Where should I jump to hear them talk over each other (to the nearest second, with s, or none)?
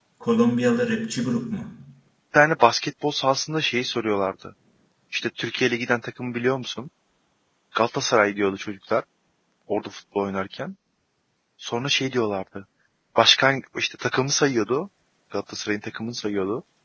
none